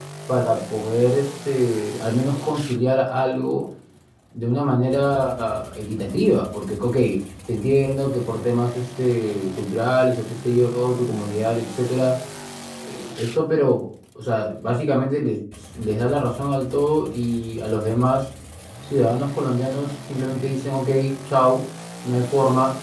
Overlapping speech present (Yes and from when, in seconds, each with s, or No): No